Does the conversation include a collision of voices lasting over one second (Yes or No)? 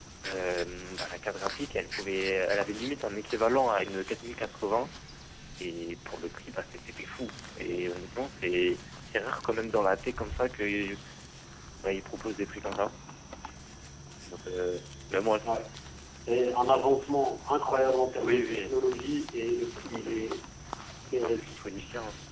No